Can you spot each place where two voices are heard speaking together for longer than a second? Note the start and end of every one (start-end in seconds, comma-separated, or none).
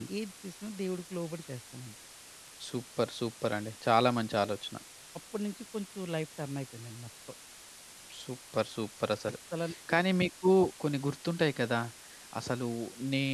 none